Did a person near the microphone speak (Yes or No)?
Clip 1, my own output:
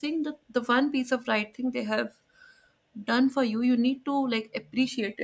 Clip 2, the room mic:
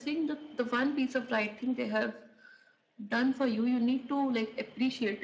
No